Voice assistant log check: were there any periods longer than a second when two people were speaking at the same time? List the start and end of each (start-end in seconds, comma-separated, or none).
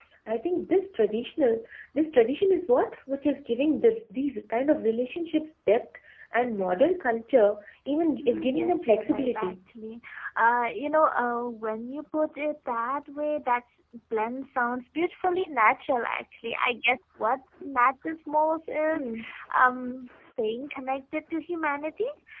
8.2-9.6